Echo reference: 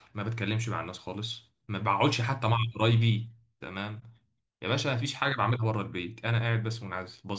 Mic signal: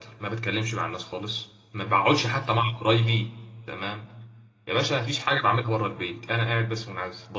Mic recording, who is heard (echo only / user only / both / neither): echo only